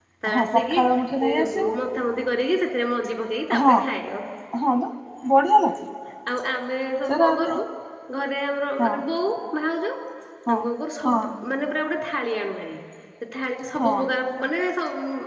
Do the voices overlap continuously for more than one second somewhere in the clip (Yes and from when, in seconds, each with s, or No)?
No